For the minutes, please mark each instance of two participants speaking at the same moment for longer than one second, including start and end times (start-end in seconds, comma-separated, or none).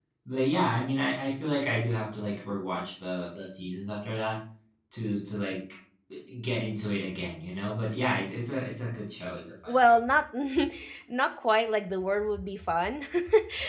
none